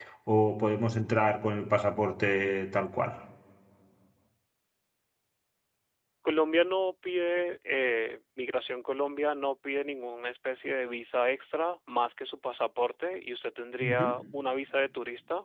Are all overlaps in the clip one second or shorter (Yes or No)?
Yes